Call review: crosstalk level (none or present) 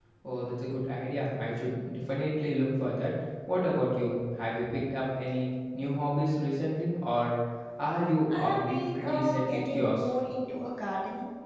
present